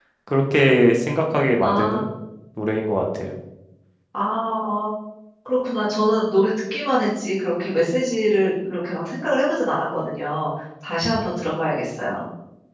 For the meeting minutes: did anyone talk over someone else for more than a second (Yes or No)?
No